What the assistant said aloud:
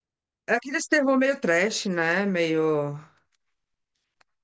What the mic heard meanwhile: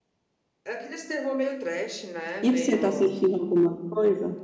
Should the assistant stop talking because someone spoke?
Yes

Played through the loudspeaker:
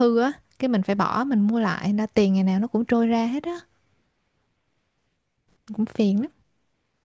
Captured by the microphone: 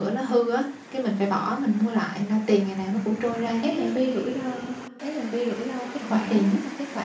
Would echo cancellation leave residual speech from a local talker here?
Yes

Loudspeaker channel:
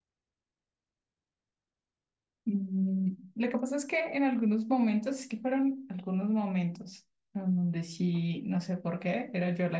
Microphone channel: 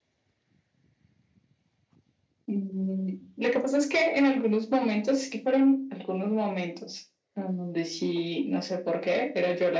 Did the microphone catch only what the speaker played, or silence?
Yes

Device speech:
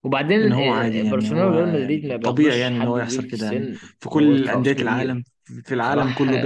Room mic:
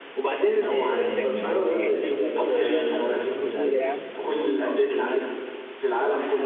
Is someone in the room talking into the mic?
Yes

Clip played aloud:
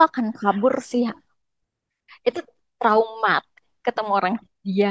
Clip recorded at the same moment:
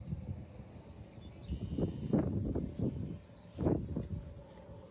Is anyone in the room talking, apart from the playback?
No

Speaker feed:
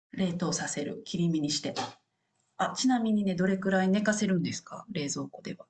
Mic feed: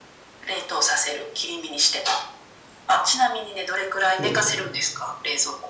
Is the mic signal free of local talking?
No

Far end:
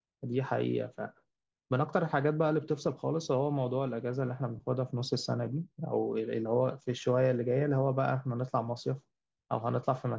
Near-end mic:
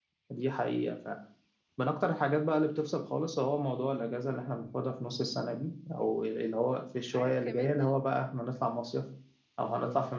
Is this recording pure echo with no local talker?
No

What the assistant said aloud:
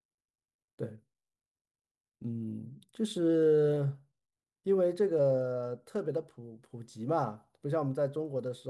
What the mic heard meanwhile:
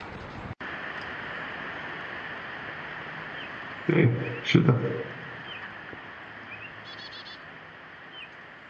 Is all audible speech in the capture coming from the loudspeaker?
No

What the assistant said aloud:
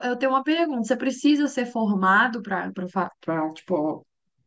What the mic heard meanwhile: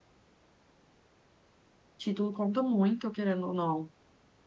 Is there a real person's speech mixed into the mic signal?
Yes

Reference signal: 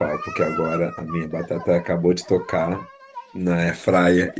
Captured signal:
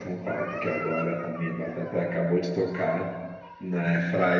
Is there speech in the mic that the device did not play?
No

